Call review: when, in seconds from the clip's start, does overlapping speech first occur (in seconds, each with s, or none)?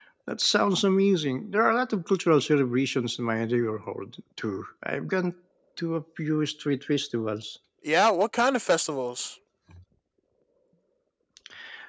none